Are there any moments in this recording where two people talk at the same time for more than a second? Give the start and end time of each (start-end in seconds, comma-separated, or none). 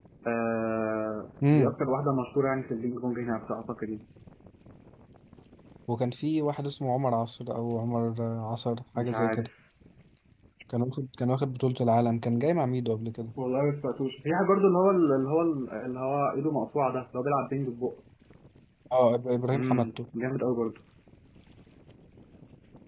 none